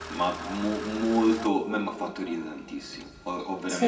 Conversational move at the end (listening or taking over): listening